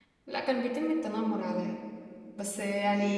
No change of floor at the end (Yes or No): Yes